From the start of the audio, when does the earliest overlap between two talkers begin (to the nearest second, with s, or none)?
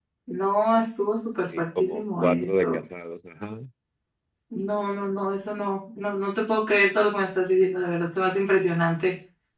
2 s